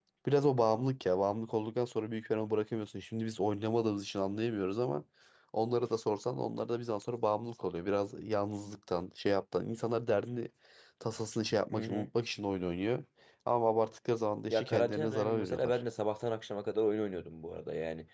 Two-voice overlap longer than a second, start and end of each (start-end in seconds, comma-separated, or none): 14.5-15.8